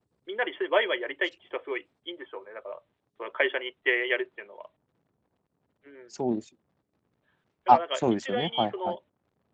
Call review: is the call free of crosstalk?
No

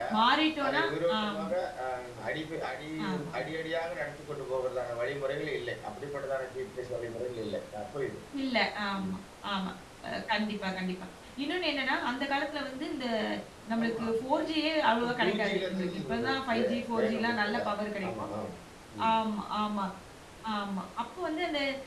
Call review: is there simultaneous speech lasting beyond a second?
Yes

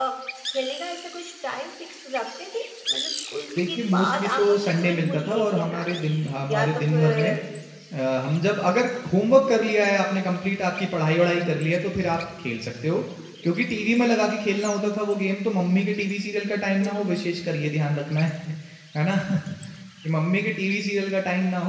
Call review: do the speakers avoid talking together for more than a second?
No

